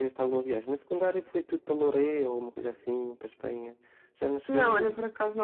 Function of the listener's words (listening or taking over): taking over